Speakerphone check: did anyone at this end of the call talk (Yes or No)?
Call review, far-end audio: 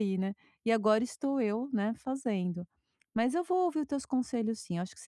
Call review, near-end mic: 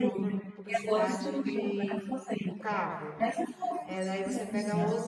Yes